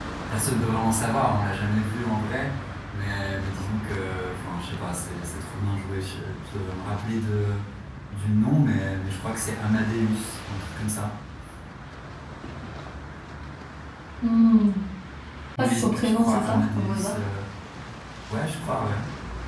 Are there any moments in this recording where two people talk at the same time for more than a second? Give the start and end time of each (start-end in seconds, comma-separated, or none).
15.6-17.2